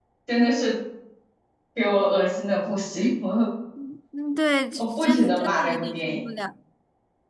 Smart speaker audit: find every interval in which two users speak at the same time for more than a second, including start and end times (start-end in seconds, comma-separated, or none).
4.8-6.2